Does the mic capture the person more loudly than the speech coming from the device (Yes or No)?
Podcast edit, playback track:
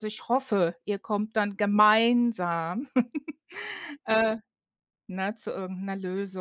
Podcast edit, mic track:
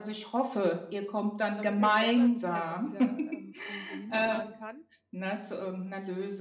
No